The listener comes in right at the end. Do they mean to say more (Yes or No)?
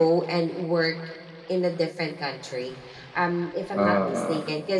No